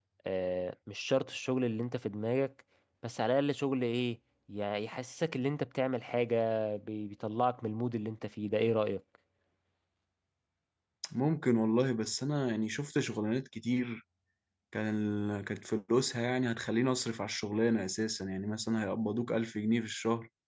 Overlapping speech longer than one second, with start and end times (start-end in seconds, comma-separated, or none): none